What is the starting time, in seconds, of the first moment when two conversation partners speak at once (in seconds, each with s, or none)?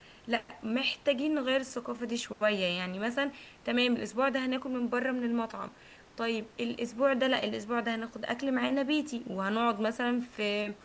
none